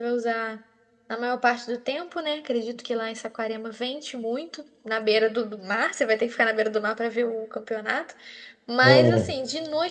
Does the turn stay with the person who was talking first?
Yes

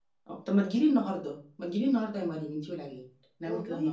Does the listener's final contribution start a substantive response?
Yes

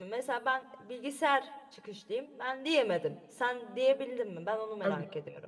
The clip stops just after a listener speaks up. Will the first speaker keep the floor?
No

